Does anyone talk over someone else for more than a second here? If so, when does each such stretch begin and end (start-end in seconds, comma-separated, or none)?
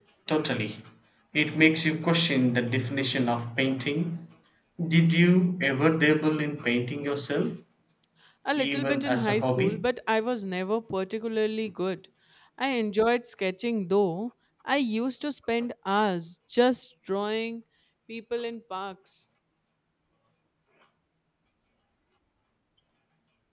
8.6-9.8